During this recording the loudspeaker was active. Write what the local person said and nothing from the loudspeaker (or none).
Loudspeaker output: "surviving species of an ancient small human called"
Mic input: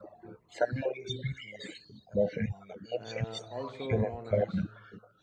uh, also known as